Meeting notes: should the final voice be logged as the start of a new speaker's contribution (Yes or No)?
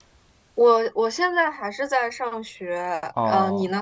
Yes